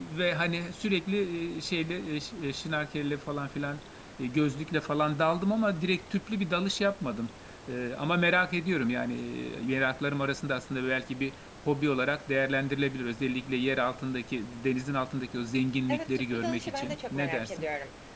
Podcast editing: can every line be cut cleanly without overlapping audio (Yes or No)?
No